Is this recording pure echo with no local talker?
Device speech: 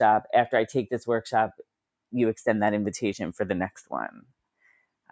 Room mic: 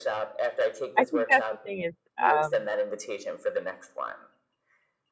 No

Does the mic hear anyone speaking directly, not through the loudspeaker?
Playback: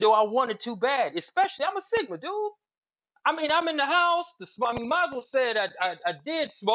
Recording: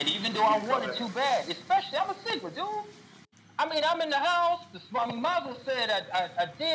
Yes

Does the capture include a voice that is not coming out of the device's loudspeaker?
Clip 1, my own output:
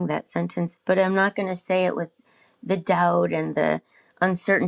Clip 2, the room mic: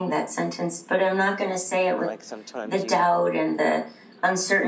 Yes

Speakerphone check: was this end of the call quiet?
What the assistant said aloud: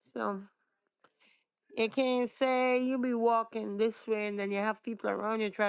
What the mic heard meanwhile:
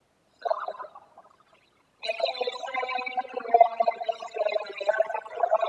Yes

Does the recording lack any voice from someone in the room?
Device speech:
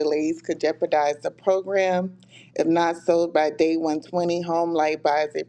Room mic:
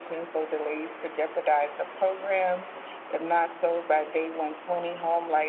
Yes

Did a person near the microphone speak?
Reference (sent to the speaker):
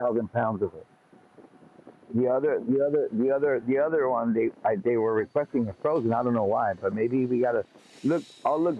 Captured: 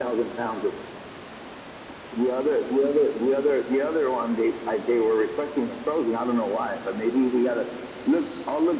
No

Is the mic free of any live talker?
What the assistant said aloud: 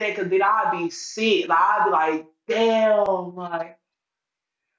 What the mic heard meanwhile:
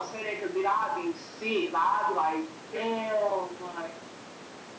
Yes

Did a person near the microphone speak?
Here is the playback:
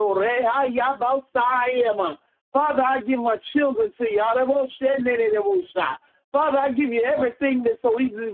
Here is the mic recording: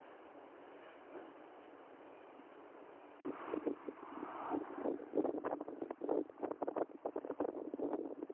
No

